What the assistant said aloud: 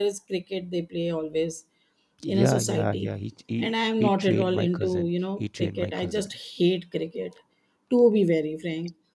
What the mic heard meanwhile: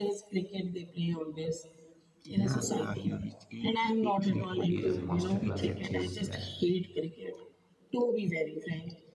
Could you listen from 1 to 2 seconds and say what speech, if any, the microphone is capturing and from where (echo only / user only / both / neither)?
echo only